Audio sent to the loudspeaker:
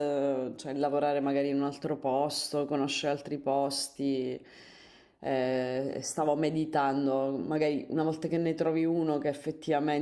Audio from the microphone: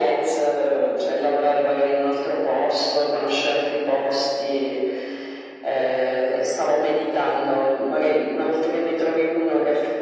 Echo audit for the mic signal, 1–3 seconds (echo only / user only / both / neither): echo only